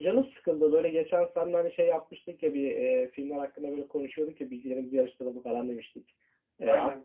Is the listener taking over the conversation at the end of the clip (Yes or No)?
No